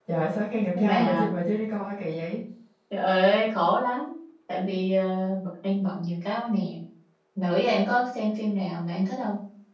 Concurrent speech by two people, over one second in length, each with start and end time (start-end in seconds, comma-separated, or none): none